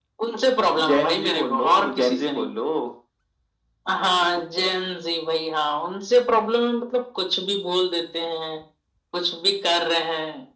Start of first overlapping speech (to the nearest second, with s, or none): 1 s